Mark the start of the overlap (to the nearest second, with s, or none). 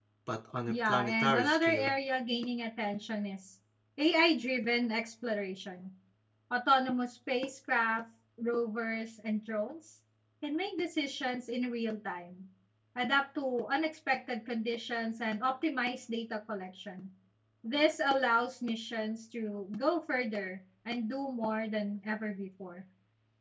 1 s